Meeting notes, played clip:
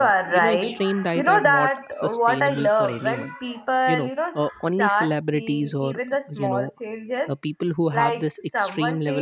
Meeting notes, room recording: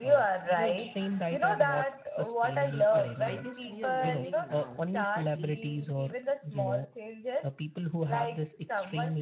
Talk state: both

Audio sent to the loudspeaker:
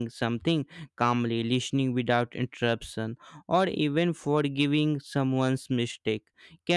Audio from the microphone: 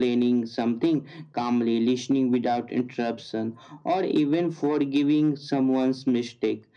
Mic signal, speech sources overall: echo only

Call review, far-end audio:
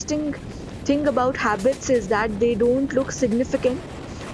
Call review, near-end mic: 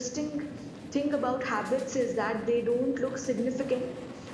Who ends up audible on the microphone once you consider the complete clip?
echo only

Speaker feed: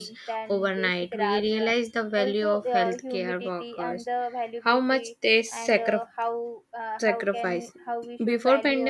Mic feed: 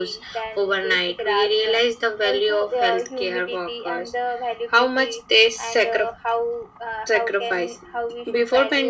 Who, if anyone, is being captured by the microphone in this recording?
echo only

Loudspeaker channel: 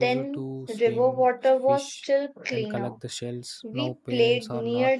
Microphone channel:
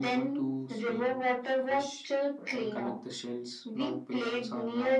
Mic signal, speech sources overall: echo only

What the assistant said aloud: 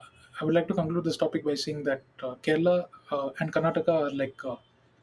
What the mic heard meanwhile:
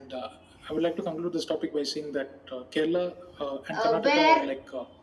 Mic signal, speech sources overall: both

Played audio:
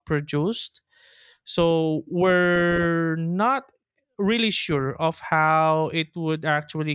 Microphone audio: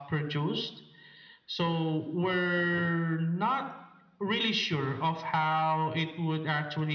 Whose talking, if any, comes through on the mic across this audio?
echo only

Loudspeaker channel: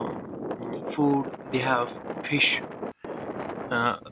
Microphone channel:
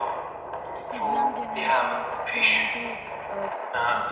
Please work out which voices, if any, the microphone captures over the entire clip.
both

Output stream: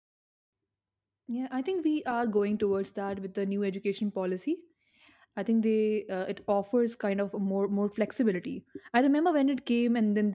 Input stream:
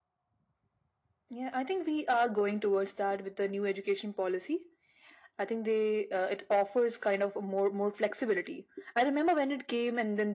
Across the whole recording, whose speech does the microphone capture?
echo only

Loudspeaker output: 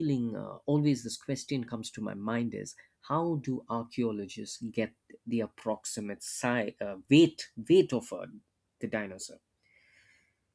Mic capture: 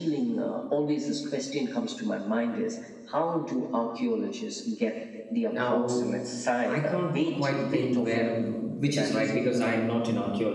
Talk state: both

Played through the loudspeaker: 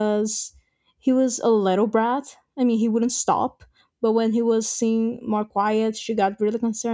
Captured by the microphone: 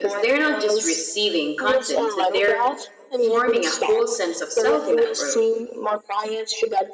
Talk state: both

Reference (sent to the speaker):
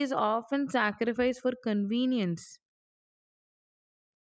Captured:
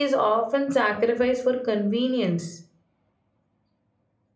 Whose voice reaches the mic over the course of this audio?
echo only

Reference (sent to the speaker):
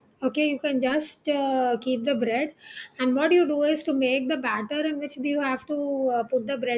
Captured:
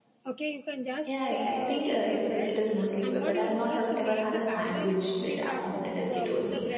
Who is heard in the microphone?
both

